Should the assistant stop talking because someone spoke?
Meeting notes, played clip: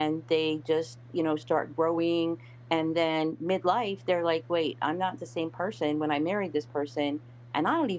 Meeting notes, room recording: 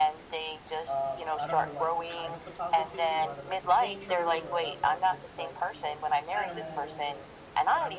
Yes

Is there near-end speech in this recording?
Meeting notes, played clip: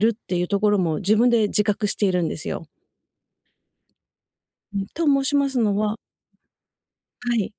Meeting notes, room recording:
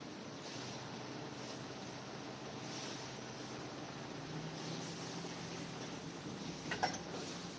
No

